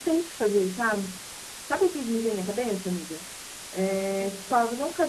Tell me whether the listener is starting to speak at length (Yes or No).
No